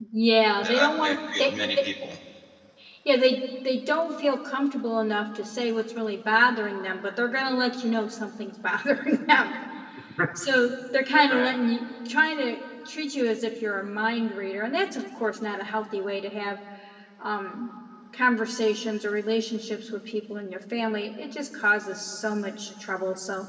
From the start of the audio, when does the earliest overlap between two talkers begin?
1 s

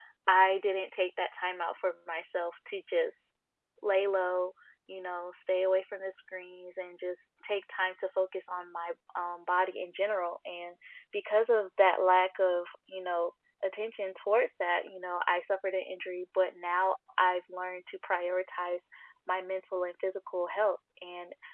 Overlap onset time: none

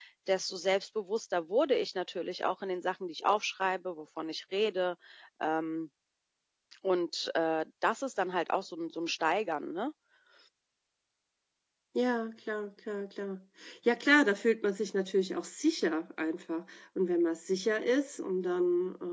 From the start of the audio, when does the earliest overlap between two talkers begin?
none

